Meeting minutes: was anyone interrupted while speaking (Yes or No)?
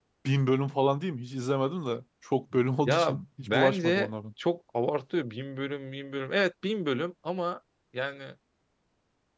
Yes